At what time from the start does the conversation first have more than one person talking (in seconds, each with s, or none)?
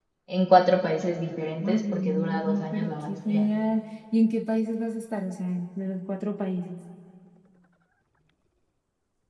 1.6 s